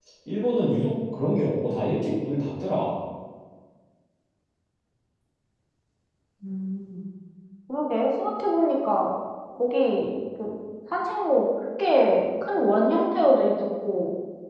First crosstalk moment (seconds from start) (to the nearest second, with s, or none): none